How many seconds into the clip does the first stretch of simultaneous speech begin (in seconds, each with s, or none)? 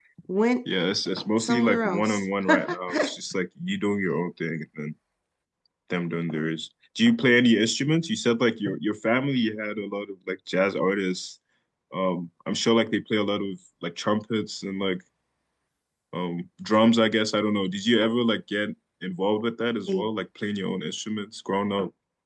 1.4 s